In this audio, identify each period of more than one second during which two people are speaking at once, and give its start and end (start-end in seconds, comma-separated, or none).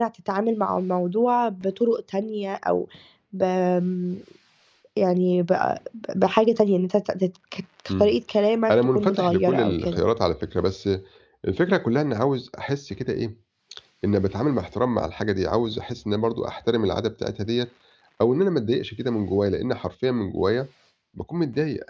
8.7-10.0